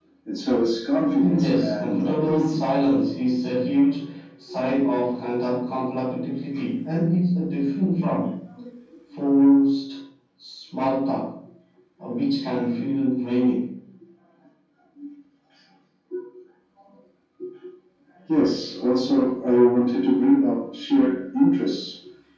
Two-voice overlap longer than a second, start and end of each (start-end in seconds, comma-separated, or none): 1.2-2.6